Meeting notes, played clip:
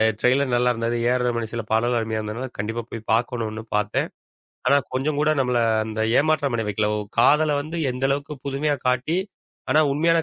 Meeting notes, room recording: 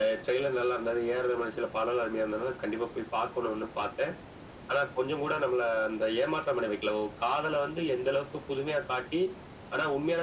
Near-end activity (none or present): none